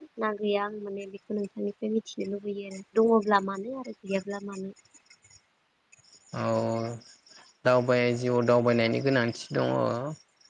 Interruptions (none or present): none